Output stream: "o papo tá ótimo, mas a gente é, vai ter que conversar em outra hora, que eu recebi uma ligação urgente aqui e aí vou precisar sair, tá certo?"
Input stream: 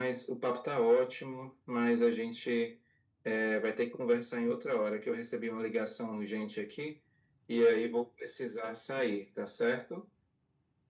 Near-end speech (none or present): none